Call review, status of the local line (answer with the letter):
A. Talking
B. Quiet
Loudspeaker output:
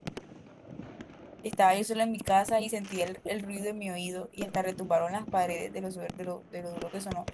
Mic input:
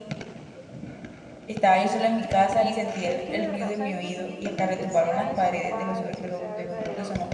A